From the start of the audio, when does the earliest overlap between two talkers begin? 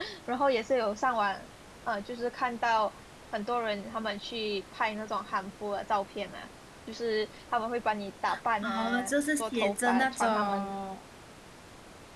9 s

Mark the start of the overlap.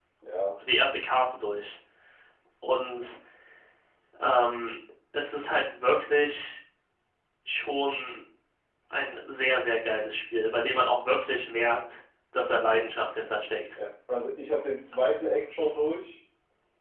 none

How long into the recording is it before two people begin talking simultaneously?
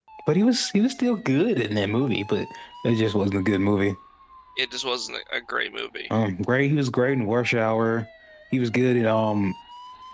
none

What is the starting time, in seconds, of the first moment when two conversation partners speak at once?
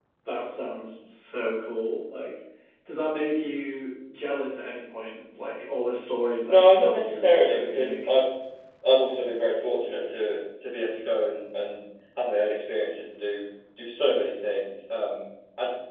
6 s

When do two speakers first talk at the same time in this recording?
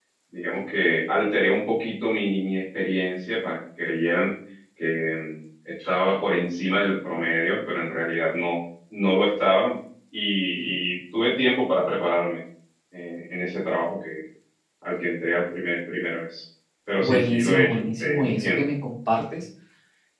17 s

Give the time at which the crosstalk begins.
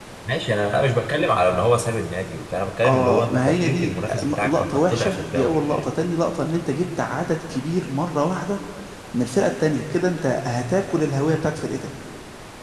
3 s

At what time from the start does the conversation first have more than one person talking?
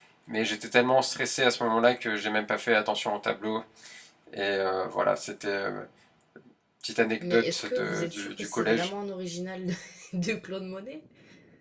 7 s

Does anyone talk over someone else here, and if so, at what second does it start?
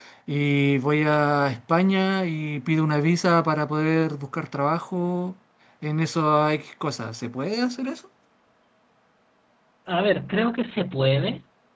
none

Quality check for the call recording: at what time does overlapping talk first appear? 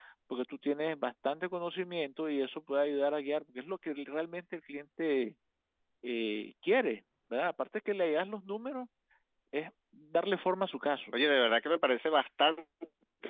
none

